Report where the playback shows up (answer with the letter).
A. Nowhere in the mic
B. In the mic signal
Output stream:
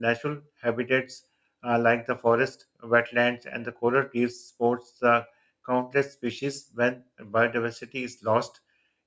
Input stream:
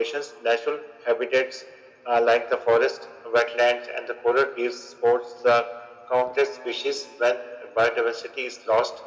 B